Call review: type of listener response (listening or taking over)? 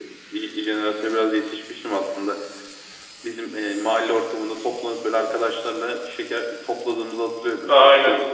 taking over